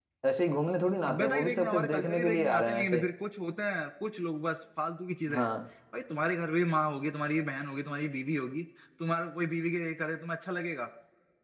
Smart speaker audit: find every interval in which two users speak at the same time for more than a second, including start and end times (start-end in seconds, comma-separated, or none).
1.1-3.0